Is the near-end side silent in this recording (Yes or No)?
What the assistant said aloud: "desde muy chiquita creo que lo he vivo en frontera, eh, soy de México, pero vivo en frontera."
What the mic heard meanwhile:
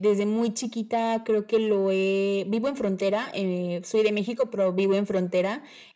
Yes